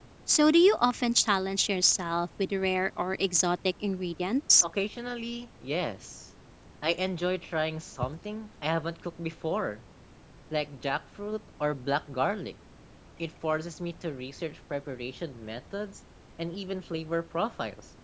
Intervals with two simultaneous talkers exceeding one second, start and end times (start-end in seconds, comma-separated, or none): none